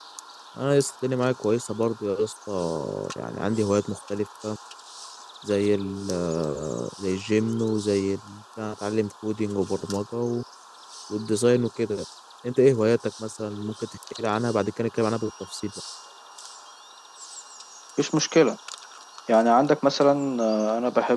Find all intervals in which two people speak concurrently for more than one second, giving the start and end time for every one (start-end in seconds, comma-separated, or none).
none